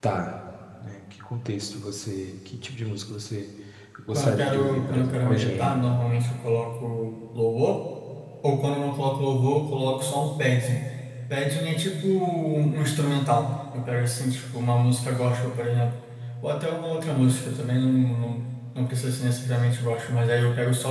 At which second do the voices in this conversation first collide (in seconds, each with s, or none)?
4.1 s